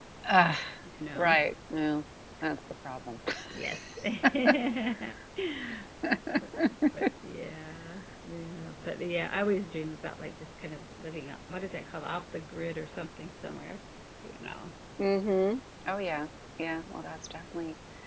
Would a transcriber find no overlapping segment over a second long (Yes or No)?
Yes